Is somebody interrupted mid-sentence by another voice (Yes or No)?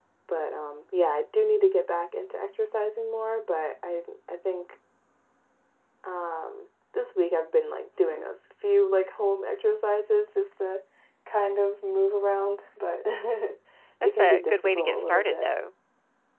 Yes